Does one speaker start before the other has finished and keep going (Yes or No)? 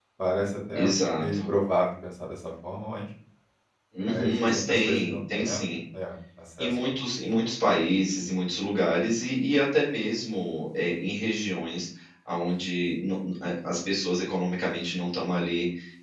Yes